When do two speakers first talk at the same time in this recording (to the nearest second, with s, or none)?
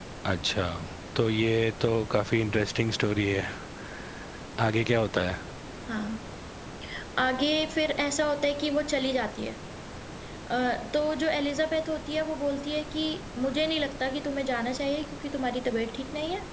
none